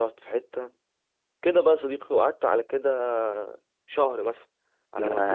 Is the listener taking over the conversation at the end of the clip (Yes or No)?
No